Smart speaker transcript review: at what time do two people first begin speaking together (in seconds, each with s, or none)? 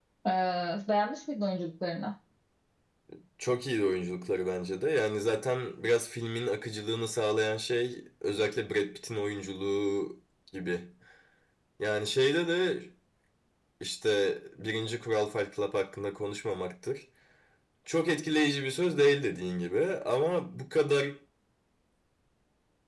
none